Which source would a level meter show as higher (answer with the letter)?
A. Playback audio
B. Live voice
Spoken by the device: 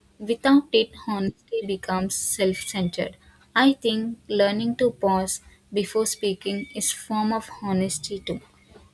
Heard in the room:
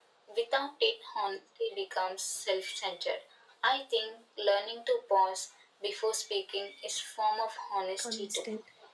A